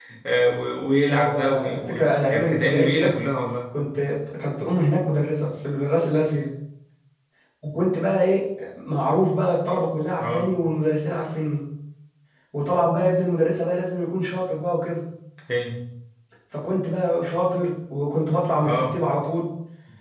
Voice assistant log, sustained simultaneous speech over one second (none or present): present